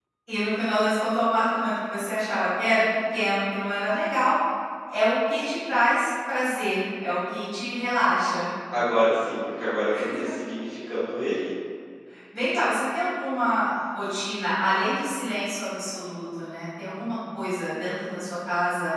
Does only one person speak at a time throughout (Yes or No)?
Yes